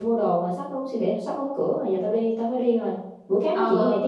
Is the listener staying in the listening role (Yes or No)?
No